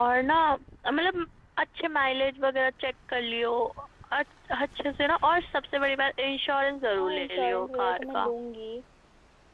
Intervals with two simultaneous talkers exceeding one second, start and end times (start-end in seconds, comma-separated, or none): 7.0-8.3